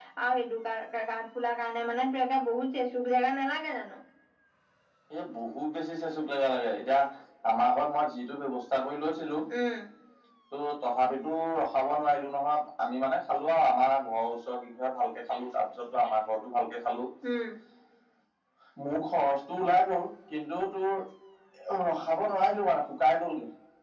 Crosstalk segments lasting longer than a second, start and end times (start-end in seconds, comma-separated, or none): none